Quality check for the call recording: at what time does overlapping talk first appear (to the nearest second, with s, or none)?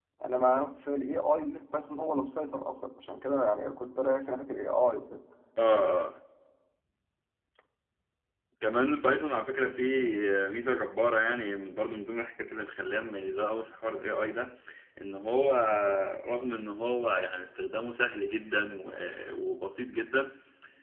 none